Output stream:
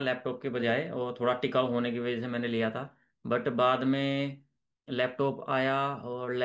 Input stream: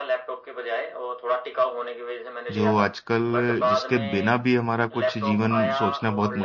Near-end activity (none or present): present